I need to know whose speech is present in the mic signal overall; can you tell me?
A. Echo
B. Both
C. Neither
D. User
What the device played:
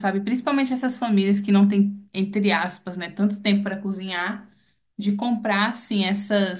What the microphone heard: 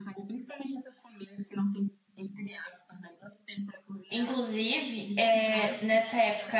B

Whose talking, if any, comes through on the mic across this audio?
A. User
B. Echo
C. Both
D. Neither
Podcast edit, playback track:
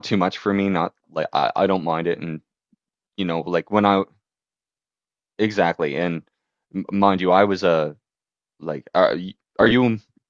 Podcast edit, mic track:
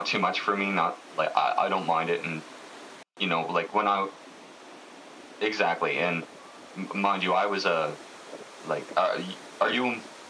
B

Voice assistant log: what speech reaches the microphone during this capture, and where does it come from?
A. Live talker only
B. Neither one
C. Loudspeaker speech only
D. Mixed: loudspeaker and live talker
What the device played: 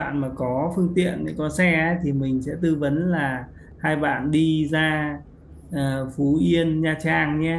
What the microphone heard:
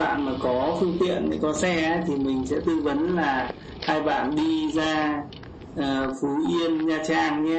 C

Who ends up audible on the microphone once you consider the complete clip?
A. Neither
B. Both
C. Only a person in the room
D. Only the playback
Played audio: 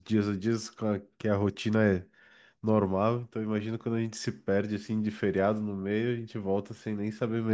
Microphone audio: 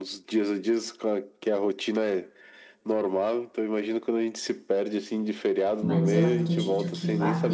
B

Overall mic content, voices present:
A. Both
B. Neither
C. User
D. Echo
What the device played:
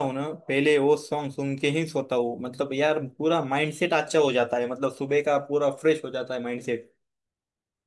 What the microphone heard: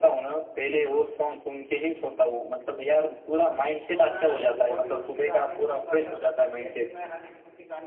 A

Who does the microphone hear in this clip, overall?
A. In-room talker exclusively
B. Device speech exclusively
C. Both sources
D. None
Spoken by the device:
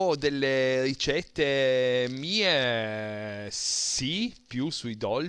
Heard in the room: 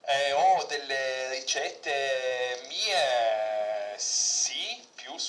B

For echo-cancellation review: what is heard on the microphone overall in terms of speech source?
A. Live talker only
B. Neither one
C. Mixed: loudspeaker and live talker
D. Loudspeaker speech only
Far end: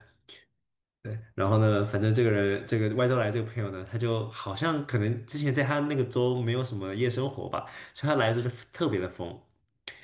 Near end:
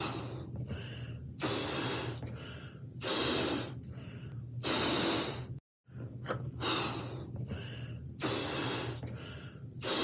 B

